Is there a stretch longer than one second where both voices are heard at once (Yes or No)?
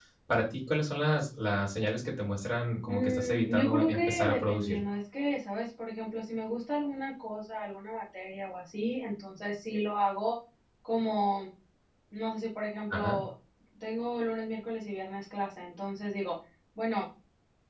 Yes